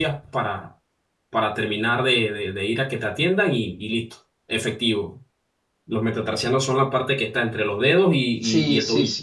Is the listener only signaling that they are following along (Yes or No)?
No